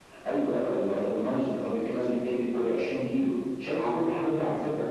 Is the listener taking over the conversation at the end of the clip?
No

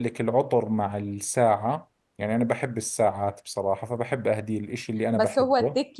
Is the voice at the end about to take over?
Yes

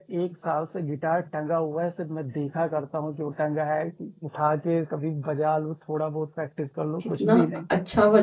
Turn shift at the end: Yes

